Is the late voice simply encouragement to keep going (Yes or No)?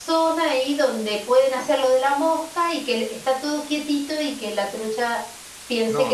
No